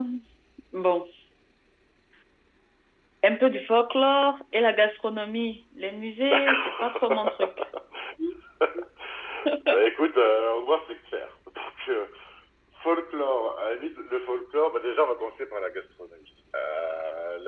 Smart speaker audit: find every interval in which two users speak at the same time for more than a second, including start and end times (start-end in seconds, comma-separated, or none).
6.2-7.5